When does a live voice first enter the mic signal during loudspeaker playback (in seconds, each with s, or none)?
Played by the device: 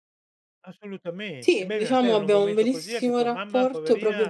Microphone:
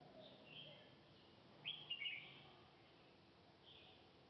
none